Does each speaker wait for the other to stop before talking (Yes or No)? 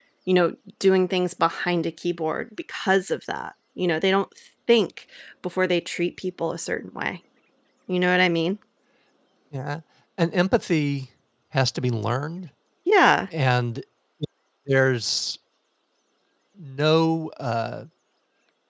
Yes